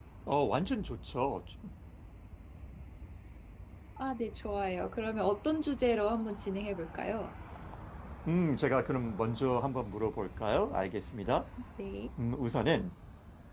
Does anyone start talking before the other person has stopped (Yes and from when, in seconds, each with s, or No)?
No